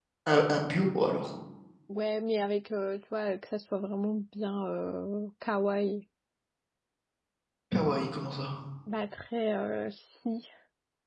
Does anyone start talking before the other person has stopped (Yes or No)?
No